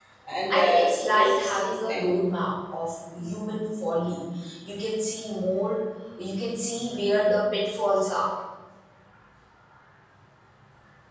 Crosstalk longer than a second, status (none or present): present